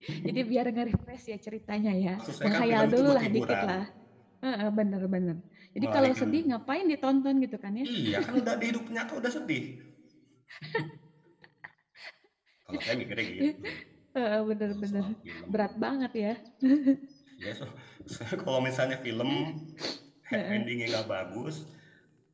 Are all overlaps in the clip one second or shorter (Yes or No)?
No